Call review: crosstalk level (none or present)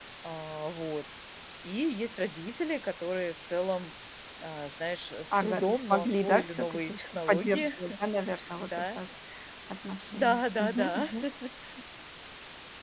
present